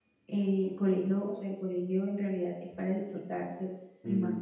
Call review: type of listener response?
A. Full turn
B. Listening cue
B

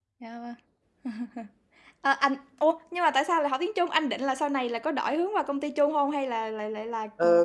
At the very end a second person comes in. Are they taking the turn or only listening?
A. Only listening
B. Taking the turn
B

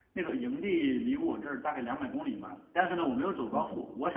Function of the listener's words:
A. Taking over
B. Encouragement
B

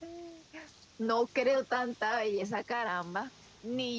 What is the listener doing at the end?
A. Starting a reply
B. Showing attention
B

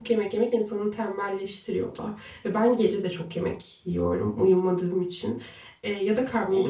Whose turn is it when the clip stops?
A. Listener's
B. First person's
A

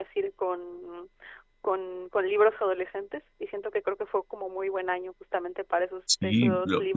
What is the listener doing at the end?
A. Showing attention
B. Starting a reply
B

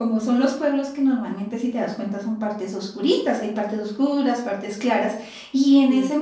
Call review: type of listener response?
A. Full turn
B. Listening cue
B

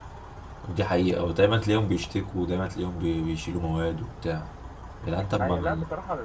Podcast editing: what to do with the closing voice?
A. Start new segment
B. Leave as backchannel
A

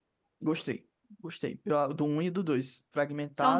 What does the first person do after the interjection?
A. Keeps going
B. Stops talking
A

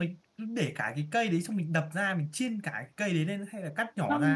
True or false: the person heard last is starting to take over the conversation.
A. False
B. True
B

